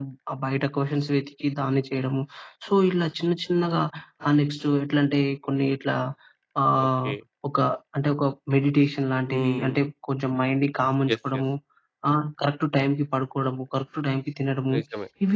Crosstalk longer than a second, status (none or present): none